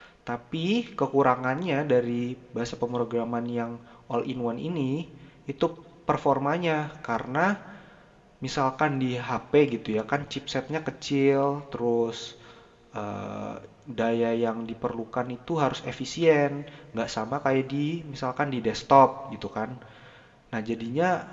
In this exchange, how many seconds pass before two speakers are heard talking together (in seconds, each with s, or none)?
none